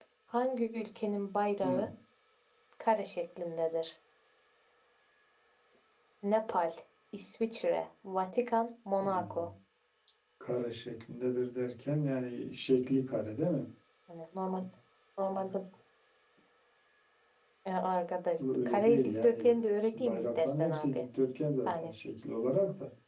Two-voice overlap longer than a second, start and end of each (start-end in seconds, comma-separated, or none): 18.4-21.0